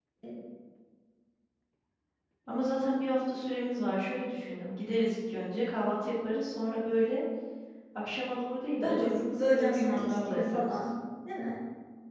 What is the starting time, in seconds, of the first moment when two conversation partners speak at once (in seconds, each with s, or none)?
8.8 s